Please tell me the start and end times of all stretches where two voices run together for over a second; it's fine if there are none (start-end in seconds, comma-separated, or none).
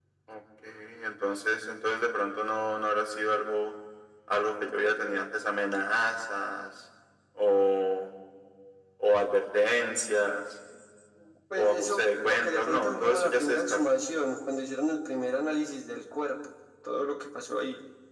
11.6-13.8